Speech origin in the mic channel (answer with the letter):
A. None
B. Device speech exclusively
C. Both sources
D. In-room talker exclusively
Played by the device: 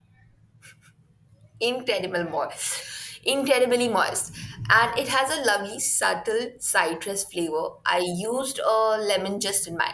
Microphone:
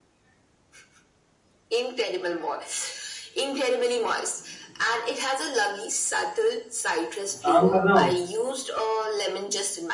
C